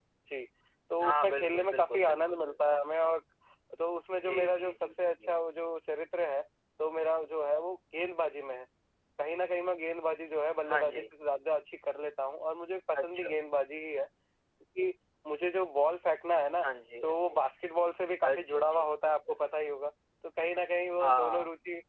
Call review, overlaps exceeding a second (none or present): present